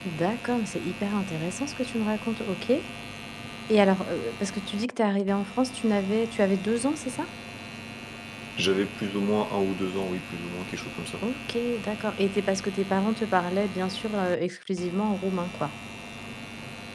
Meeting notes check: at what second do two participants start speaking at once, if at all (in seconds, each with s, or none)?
none